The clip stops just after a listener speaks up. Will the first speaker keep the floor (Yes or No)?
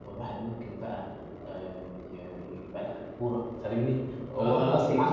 No